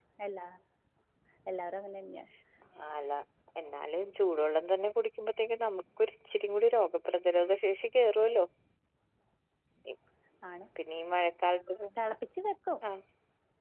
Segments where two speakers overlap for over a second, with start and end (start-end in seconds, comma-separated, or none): none